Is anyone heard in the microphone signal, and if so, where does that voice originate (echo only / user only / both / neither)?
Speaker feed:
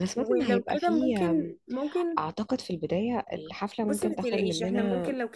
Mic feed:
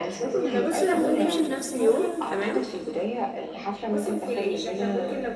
both